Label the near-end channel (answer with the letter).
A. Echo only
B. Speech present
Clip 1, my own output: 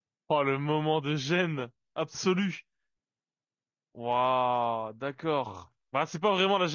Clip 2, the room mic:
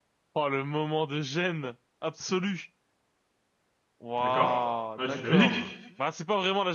B